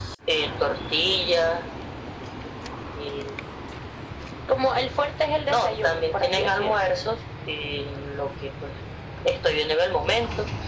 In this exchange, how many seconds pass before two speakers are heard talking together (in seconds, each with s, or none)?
5.5 s